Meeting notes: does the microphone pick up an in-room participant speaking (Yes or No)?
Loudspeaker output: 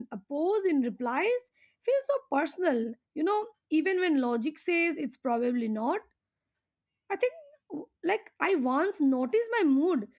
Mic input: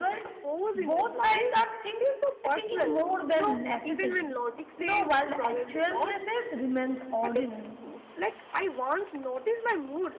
Yes